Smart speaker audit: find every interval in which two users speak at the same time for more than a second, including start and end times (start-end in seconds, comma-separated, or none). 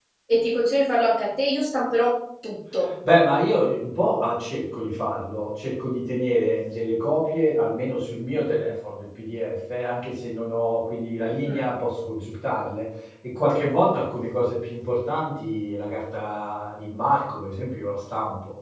none